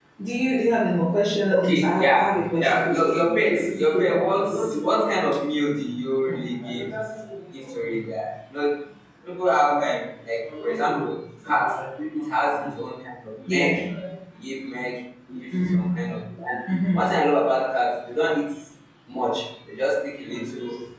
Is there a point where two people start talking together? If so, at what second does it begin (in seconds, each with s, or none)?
1.5 s